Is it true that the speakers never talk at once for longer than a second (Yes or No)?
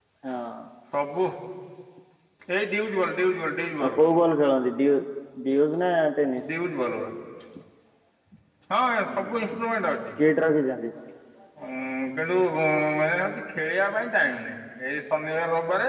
Yes